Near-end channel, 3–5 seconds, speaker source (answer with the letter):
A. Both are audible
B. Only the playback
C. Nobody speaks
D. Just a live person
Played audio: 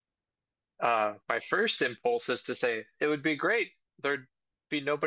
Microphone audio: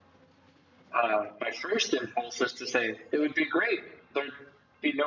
B